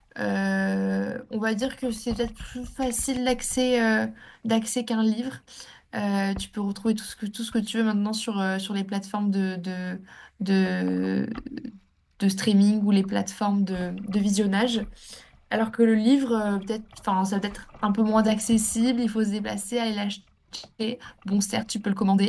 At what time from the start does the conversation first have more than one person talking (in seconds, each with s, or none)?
none